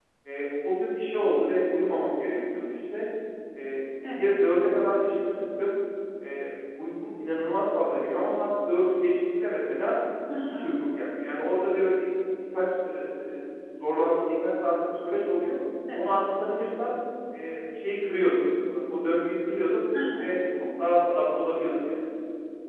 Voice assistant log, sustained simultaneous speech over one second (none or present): none